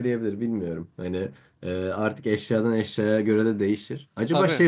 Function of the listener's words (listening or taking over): listening